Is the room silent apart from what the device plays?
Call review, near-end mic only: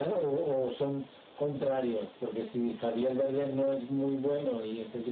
Yes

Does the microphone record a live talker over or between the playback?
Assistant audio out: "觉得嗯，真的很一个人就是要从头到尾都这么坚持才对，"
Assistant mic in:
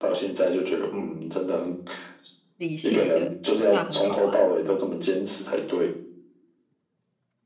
Yes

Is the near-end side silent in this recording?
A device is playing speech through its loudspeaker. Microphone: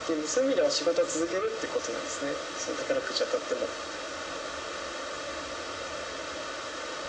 Yes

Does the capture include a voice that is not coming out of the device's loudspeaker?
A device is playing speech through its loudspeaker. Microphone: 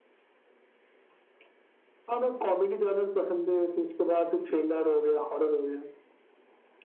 No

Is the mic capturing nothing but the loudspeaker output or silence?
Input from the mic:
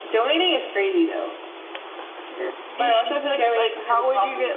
No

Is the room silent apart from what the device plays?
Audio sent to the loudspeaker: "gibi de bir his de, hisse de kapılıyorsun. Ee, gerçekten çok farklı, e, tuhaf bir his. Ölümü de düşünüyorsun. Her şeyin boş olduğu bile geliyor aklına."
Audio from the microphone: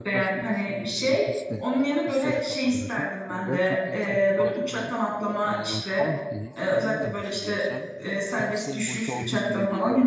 No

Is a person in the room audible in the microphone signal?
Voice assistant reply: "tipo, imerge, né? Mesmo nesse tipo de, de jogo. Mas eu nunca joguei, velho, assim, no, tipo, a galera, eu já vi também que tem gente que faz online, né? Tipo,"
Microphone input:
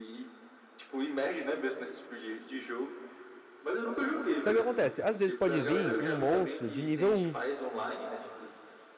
Yes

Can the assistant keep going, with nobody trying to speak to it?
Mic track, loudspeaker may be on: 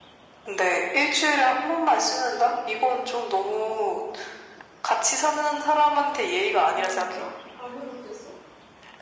No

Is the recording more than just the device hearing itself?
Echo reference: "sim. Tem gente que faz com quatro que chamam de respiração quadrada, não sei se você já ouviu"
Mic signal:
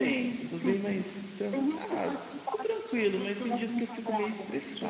Yes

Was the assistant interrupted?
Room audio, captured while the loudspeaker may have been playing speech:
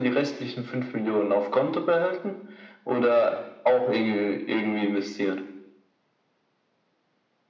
No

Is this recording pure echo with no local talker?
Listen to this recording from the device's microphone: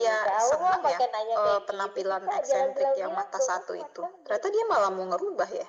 Yes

